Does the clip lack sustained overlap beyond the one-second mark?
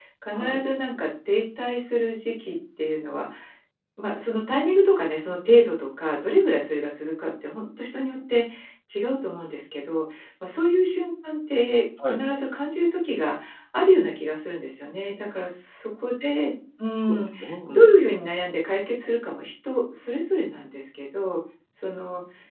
Yes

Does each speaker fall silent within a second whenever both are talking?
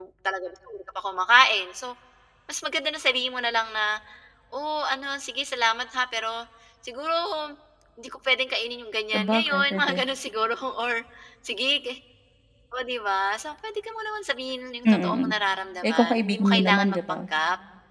No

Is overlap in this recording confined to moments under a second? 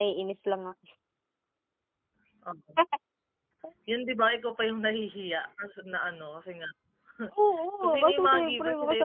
No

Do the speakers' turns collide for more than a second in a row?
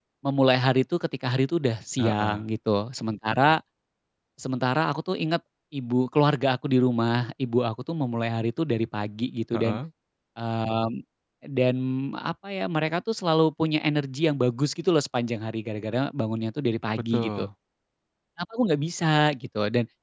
No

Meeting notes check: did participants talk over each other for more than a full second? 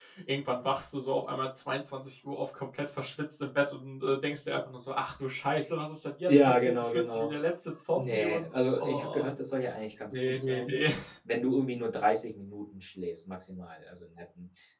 Yes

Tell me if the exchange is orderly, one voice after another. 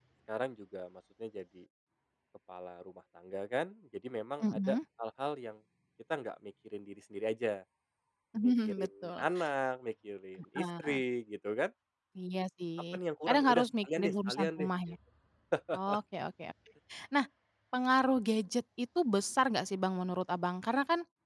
No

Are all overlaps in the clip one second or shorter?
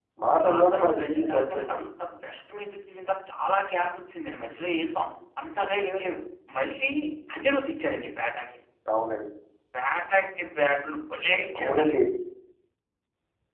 No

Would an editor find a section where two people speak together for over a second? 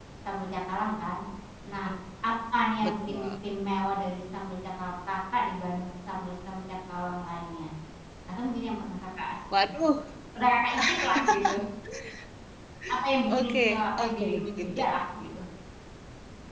Yes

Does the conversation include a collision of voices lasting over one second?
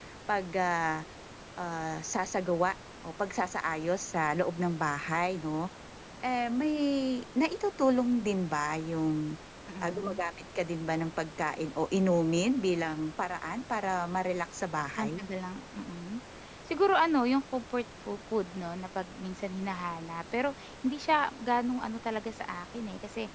No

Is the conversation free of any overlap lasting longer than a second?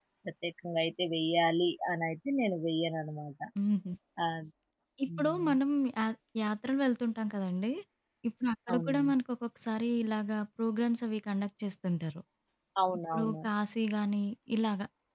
Yes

